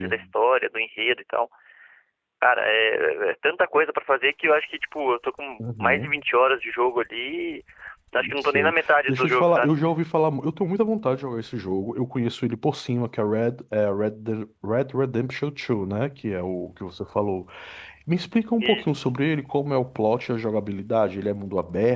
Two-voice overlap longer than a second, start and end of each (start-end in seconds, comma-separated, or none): 8.4-9.7